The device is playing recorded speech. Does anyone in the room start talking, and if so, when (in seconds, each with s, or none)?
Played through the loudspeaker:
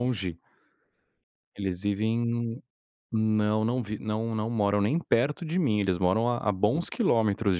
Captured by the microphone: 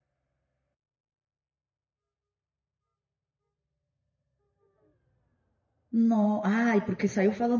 5.9 s